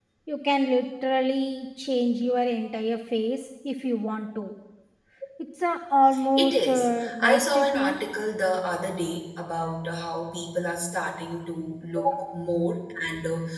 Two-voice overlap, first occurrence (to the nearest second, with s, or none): 6 s